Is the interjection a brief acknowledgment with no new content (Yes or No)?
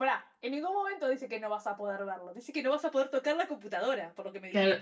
No